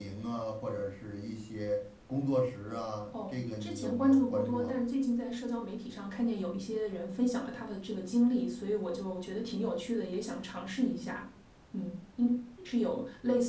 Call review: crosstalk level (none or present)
present